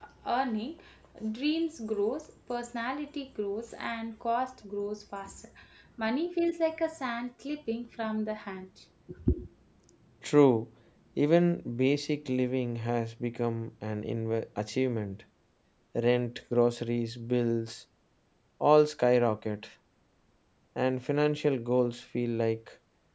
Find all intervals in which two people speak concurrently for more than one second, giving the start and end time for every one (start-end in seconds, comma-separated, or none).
none